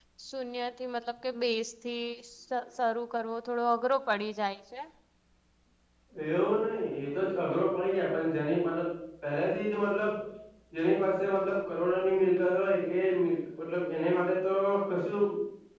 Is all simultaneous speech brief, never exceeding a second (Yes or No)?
Yes